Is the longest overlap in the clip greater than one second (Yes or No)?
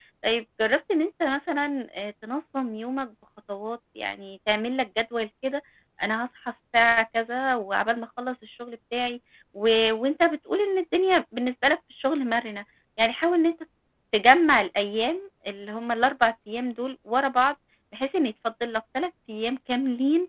No